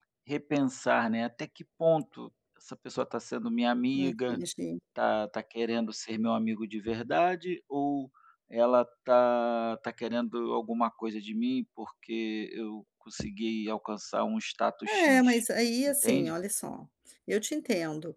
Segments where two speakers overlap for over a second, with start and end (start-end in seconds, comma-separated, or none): none